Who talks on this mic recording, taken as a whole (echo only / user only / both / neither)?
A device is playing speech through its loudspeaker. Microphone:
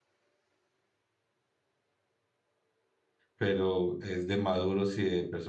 user only